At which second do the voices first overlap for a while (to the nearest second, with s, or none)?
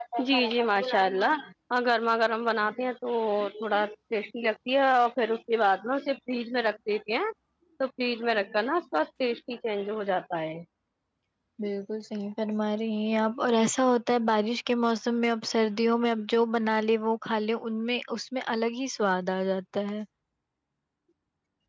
none